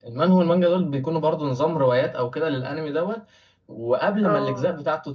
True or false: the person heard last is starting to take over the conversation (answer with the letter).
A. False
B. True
A